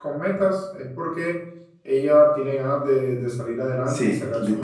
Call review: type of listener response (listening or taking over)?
taking over